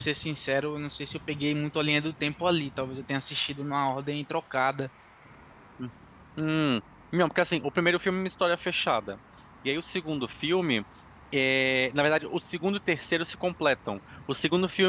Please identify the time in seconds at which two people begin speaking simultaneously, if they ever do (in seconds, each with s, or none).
none